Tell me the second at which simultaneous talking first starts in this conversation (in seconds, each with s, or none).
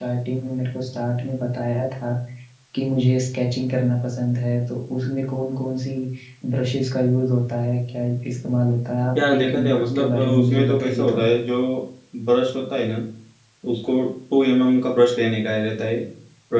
9.2 s